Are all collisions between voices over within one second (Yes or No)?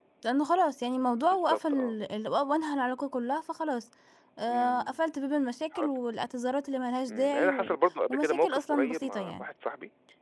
No